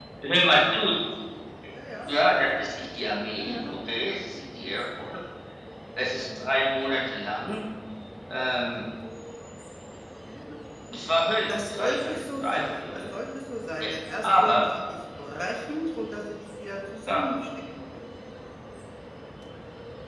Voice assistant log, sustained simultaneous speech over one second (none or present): present